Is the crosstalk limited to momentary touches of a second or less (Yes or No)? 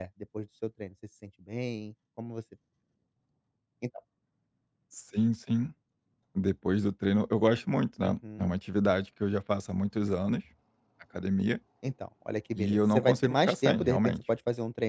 No